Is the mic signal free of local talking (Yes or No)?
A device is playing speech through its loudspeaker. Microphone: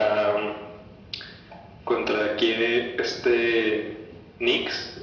Yes